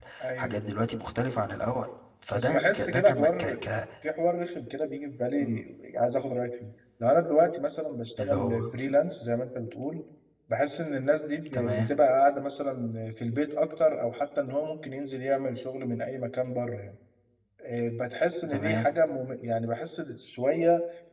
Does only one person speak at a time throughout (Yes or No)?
No